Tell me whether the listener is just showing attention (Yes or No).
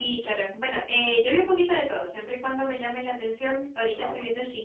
Yes